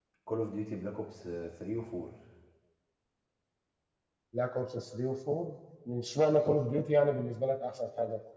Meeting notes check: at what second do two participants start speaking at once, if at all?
none

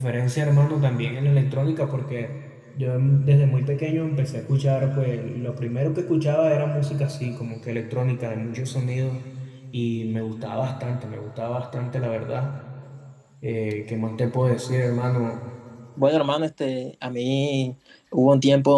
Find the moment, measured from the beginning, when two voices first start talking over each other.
none

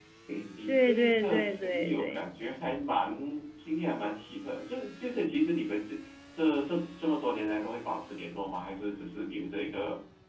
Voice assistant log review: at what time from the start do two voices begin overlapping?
0.7 s

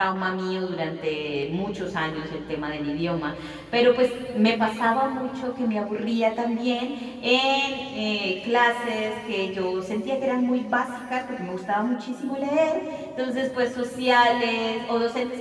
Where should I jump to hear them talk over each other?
none

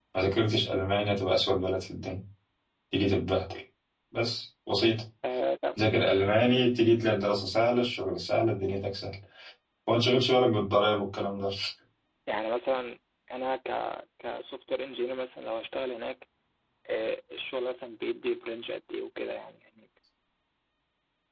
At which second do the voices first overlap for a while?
none

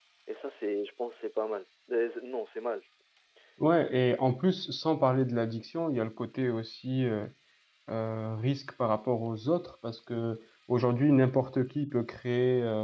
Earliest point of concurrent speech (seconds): none

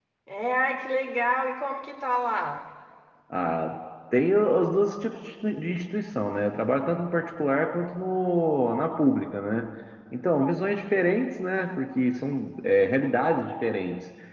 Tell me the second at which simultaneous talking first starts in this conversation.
none

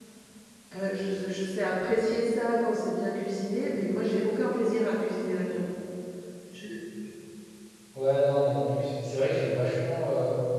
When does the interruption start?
none

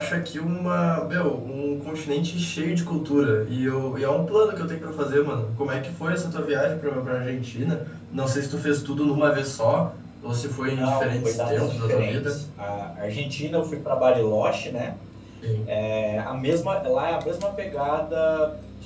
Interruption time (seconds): 10.8 s

